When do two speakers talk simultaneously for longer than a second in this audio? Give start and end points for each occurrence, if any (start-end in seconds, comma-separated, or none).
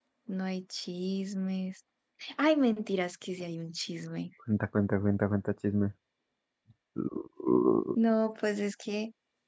none